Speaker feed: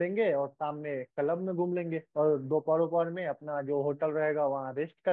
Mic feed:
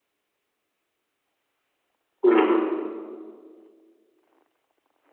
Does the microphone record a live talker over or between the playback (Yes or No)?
Yes